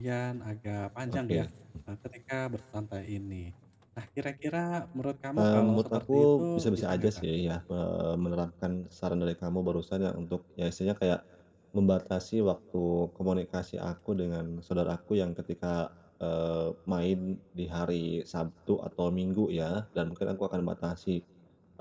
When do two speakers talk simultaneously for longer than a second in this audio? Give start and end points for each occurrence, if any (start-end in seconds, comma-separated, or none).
5.4-7.2